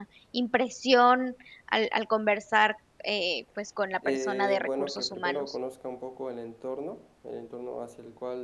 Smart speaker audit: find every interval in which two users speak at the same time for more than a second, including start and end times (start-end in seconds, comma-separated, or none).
4.0-5.6